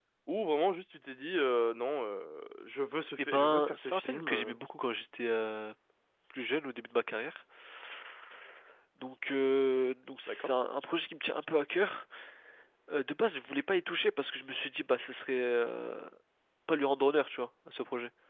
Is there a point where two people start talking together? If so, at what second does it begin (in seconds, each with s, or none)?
3.2 s